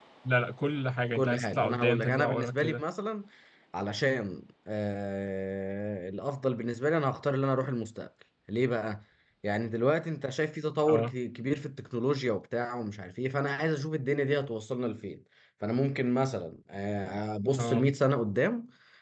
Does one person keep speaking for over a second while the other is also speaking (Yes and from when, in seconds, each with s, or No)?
Yes, from 1.1 s